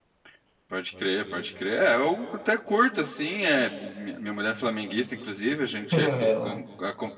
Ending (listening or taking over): listening